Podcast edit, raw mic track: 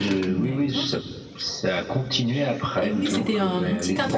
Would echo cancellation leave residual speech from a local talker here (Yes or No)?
No